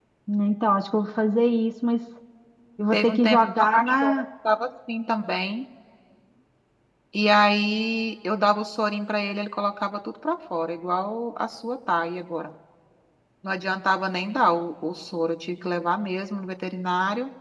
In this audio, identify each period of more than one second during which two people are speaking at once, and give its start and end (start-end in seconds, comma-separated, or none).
2.9-4.2